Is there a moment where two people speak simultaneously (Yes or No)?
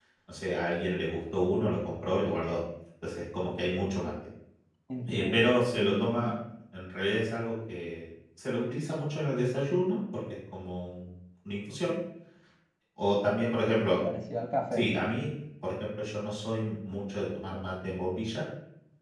Yes